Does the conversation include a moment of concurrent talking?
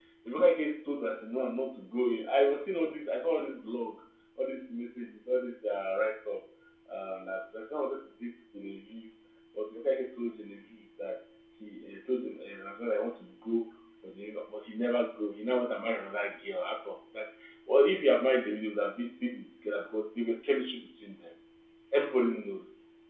No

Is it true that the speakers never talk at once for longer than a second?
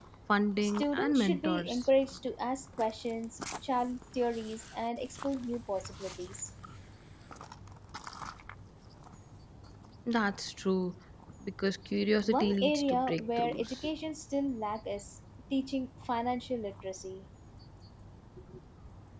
No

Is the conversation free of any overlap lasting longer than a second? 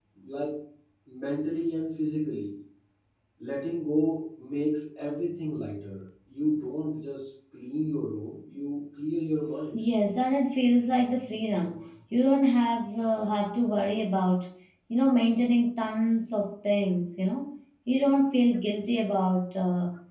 Yes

